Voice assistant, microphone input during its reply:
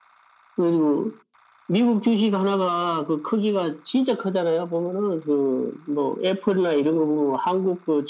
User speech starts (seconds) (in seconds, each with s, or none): none